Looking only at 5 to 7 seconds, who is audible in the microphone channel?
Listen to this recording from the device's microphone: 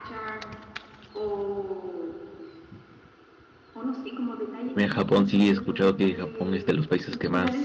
both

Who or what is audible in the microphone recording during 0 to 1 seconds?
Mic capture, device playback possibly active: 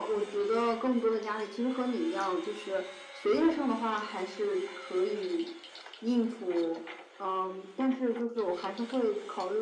echo only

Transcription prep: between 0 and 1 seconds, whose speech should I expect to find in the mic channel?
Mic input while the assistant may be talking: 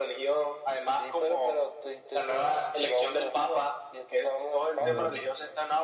echo only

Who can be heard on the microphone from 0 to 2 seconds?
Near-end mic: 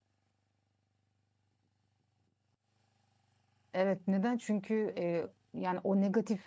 neither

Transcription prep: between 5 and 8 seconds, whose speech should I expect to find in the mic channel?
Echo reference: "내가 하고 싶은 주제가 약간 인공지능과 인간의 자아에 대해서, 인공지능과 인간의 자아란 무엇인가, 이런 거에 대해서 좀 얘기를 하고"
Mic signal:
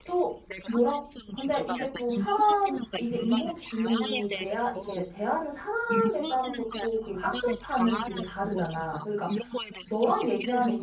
both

